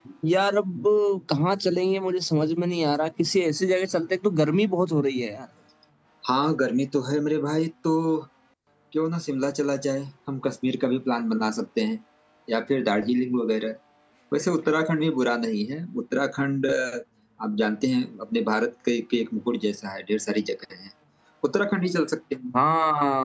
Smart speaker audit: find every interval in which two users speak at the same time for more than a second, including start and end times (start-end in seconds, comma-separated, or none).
none